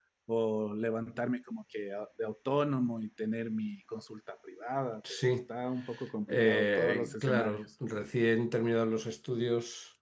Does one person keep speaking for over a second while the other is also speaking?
Yes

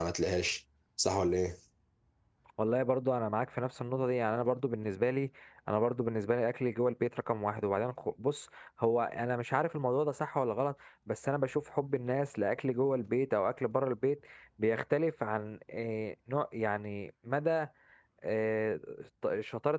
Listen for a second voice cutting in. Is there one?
No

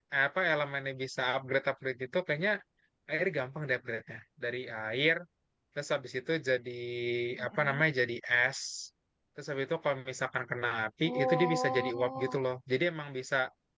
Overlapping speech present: Yes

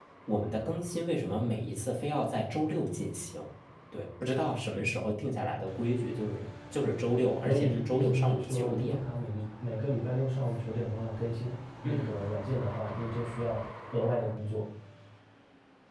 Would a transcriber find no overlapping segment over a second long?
No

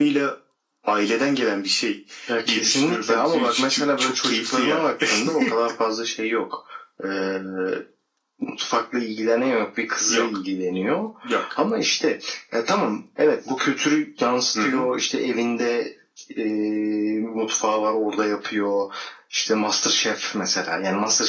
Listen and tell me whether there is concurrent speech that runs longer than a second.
Yes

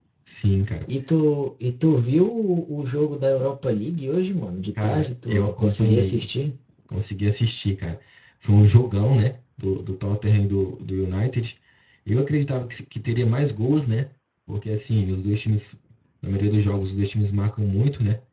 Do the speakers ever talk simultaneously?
Yes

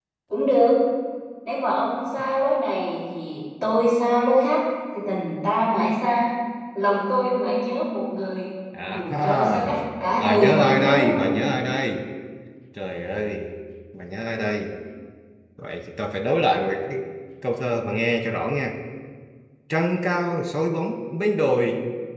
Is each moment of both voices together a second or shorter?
No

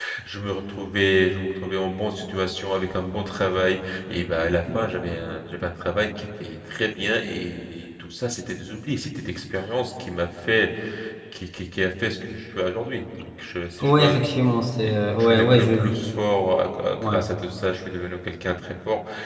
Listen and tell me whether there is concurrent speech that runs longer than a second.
Yes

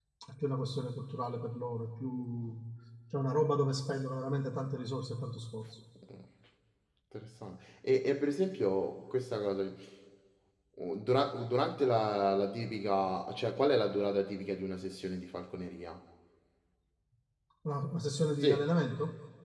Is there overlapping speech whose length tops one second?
No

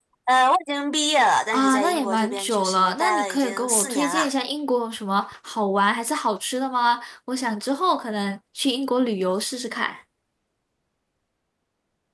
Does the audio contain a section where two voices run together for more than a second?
Yes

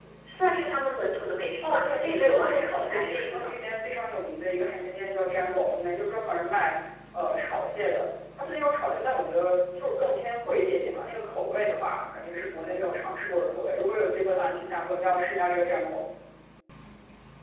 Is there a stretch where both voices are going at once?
Yes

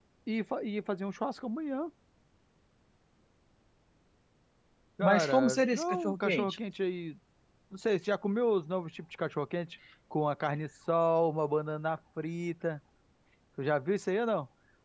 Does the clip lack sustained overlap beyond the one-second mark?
No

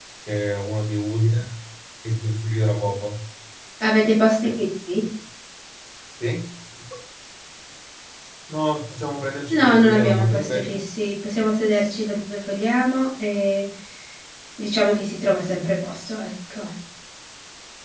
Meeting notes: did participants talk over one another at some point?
Yes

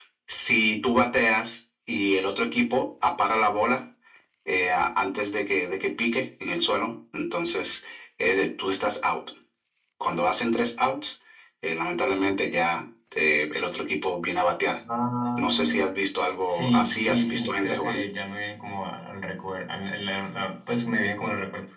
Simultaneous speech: Yes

